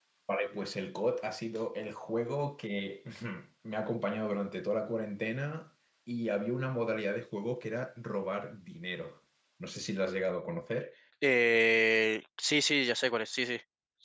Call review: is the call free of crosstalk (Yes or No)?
Yes